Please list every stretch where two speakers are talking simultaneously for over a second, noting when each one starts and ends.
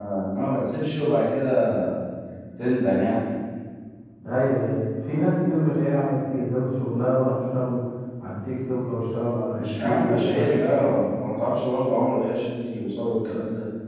9.5-10.9

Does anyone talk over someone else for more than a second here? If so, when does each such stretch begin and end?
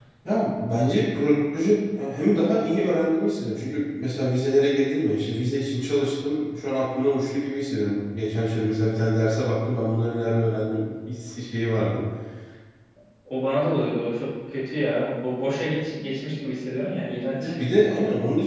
none

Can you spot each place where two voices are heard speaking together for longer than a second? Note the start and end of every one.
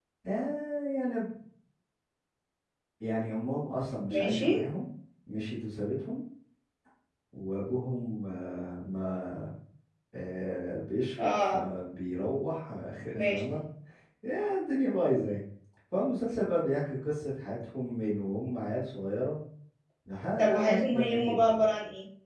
20.4-21.6

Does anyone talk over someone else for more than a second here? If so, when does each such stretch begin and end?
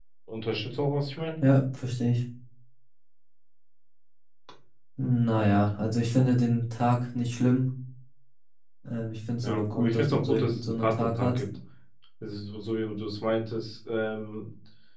9.4-11.4

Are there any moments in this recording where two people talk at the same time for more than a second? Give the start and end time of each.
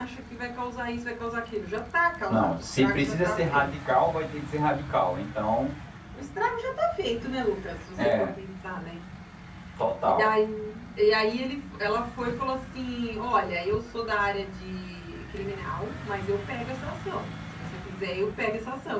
2.3-3.7

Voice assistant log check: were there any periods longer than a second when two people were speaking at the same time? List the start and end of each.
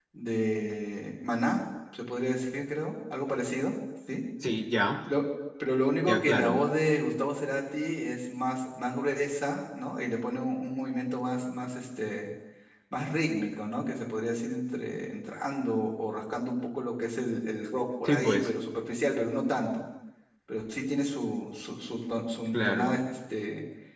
none

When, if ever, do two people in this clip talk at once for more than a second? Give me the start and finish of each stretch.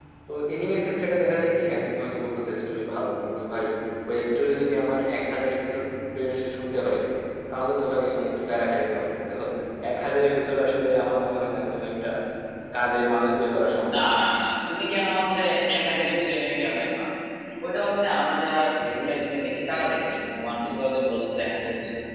none

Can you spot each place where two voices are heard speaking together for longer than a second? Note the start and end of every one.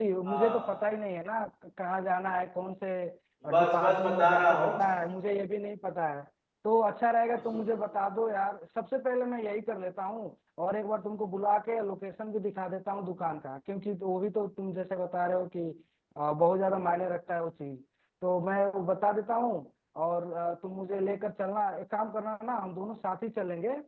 3.6-4.8

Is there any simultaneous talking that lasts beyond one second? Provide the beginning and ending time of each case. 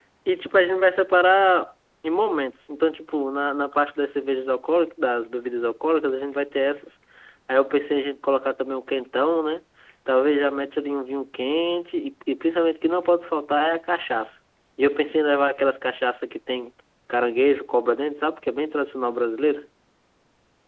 none

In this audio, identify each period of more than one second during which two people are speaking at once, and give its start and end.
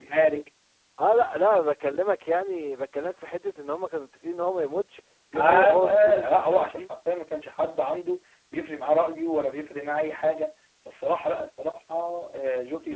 5.4-6.9

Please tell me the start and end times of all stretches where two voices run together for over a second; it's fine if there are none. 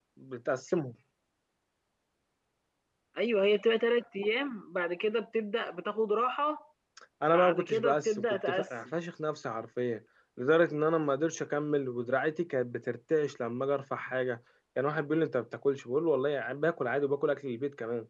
7.3-8.7

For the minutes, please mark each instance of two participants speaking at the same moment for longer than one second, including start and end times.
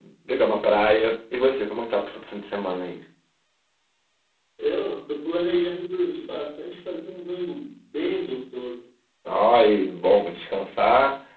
none

